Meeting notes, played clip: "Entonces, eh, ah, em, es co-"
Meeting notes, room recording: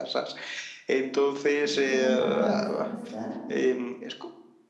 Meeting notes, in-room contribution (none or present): present